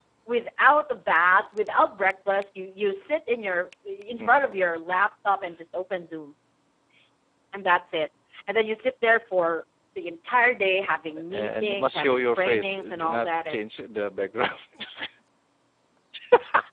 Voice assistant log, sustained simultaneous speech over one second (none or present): present